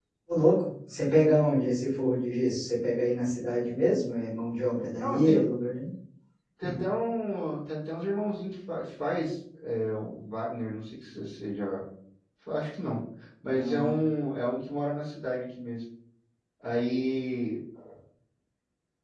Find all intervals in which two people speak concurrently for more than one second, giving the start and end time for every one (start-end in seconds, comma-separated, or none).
none